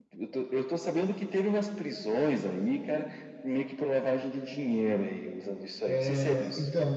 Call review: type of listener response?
taking over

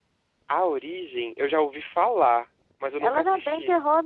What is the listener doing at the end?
taking over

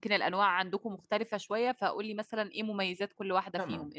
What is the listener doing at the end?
taking over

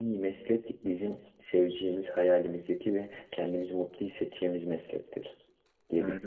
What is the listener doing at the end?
taking over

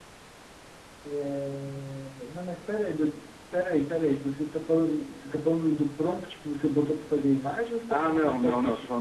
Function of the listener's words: taking over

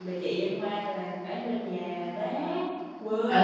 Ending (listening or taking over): taking over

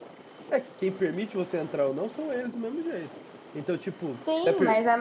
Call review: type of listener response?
taking over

